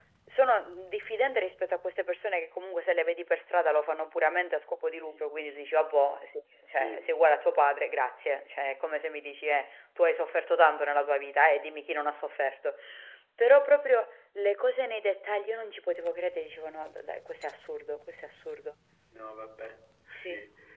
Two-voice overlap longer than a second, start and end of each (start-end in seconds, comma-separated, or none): none